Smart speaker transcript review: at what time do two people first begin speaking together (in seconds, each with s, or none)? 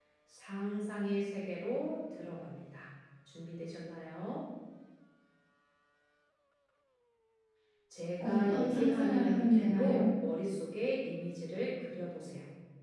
8.2 s